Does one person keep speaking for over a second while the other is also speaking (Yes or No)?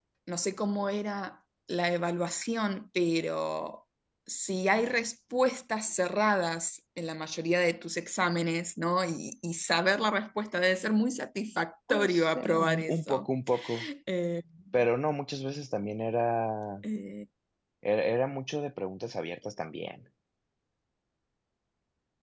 Yes